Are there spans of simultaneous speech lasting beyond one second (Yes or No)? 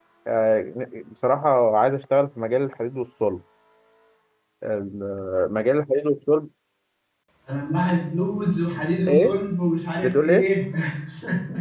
No